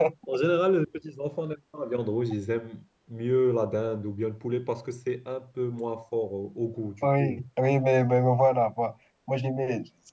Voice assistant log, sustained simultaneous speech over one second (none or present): none